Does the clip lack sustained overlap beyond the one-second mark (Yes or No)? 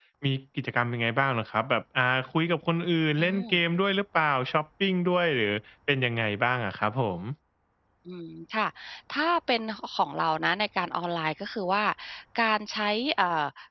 Yes